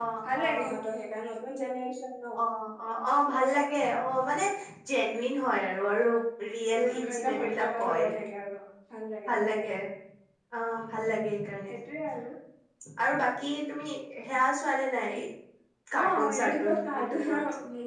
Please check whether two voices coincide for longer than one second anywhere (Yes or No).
Yes